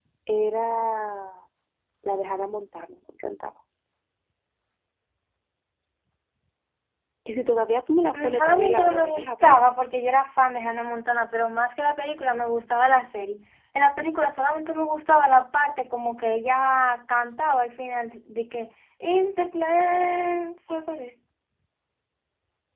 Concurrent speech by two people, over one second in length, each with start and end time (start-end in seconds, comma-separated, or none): 8.1-9.6